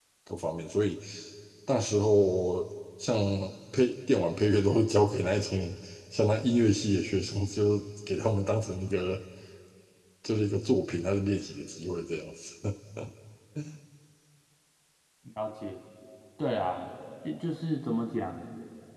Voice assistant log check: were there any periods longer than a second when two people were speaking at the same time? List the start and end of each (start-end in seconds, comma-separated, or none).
none